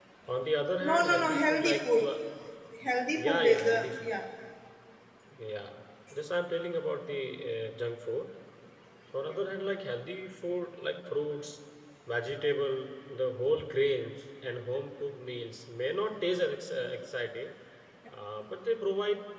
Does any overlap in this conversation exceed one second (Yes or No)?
Yes